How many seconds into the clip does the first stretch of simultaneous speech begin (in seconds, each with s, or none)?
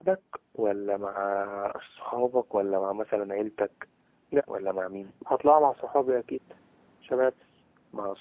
none